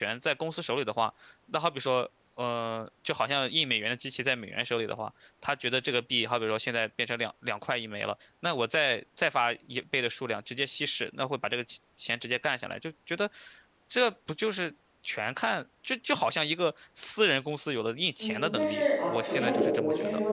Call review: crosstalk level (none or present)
present